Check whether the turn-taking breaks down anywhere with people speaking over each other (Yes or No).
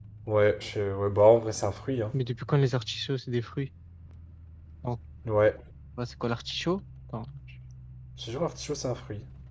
No